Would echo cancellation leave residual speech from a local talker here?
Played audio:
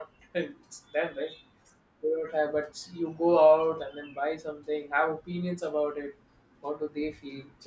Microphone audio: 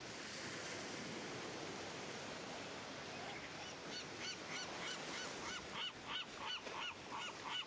No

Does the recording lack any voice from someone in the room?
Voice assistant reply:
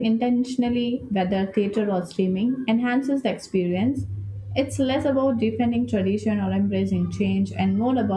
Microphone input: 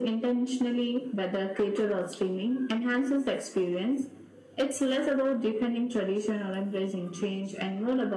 Yes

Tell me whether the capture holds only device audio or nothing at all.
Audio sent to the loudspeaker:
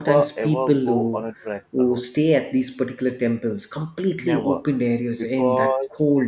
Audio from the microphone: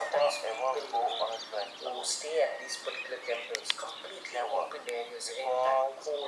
Yes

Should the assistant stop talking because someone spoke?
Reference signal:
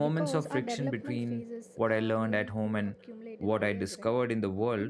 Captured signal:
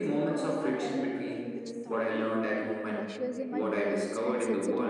Yes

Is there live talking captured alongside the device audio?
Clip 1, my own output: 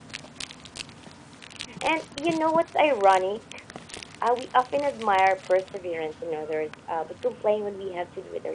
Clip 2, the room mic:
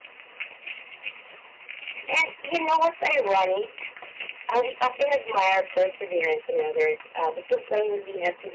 No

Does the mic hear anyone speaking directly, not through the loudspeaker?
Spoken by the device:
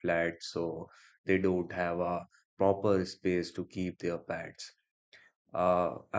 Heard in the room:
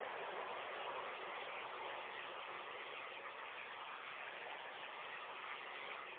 No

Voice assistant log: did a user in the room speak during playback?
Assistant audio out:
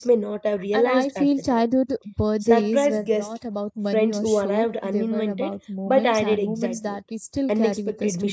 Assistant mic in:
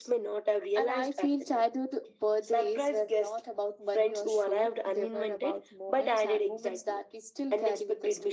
No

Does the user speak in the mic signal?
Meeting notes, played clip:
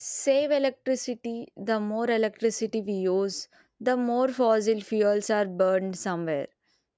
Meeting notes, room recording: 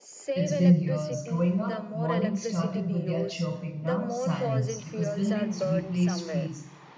Yes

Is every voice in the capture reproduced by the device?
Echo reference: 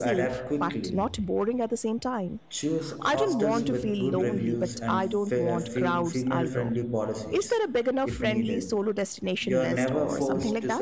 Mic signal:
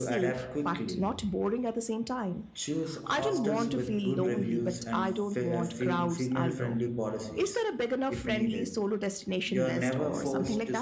Yes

